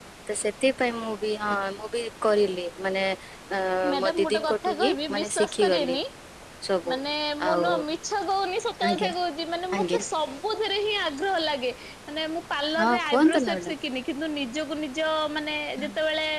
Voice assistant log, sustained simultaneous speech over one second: present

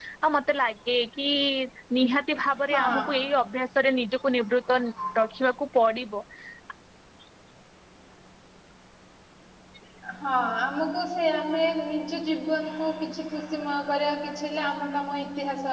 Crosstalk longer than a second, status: none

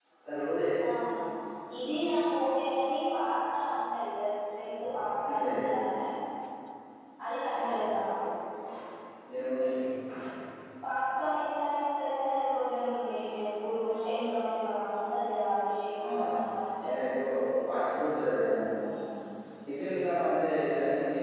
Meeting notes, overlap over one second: none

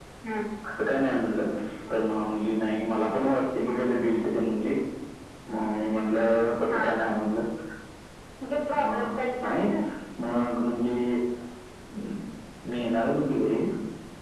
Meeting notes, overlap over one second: none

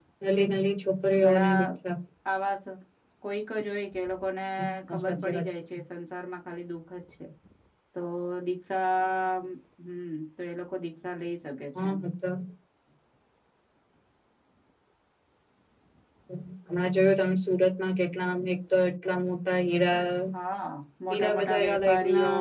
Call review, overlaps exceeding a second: present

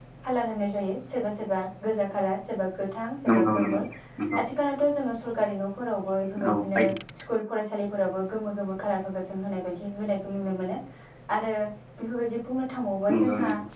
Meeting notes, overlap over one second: none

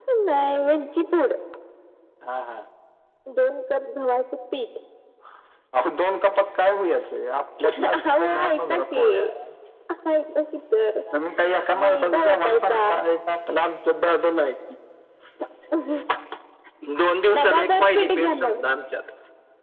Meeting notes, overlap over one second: present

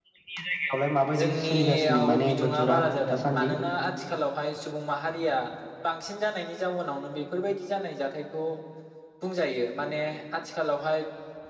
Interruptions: present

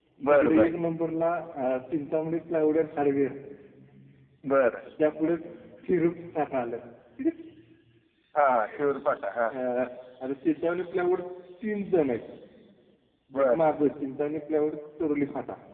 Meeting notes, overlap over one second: none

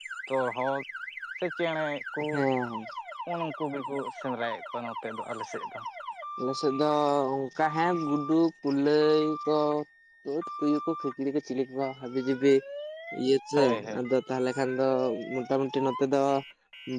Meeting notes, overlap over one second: none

